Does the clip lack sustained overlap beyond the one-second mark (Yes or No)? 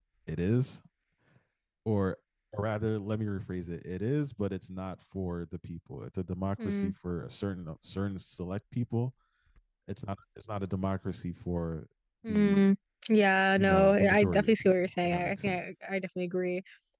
No